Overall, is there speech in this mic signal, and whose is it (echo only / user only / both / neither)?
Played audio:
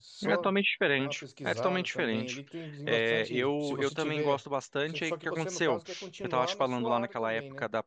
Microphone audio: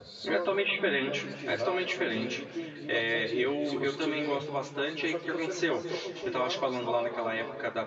echo only